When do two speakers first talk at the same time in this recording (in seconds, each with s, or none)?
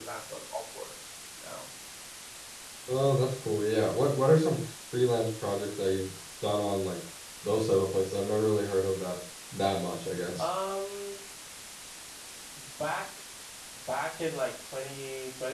none